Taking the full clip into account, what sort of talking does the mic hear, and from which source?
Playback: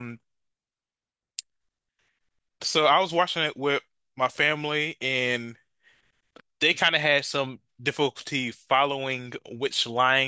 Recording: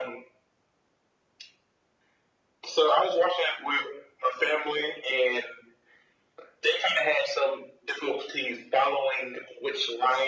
echo only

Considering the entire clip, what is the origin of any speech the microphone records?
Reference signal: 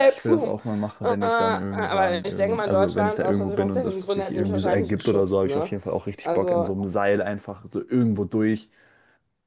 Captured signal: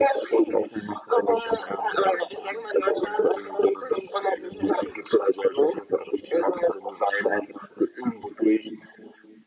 echo only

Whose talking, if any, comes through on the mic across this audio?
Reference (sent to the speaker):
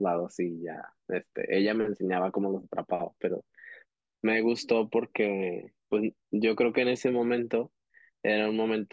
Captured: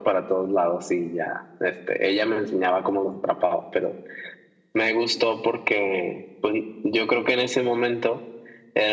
echo only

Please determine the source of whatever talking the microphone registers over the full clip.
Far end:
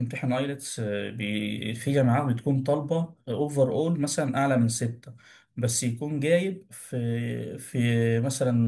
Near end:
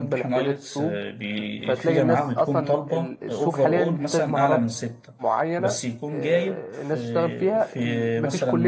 both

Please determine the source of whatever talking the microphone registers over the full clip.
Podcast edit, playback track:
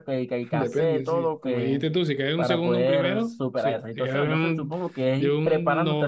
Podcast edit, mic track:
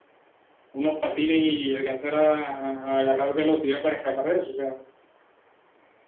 user only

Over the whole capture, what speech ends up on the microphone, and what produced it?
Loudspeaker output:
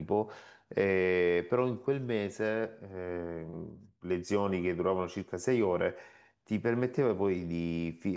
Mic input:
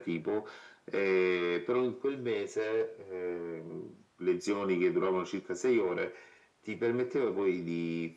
echo only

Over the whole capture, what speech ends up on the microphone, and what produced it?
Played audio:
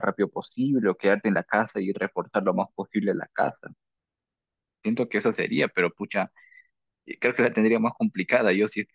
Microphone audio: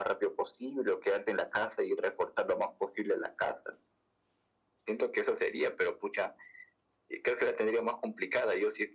echo only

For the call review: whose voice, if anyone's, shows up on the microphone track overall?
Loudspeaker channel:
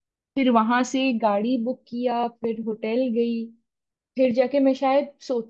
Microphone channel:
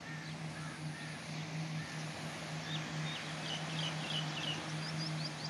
neither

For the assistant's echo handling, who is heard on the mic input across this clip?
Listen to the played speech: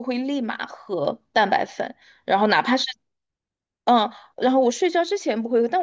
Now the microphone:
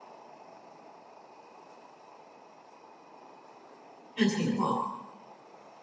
user only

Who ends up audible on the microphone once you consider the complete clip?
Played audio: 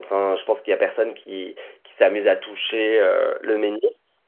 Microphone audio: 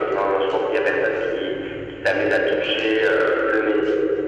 echo only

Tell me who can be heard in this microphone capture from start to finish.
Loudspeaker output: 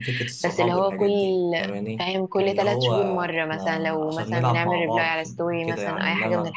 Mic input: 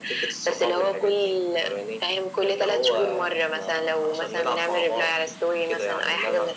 echo only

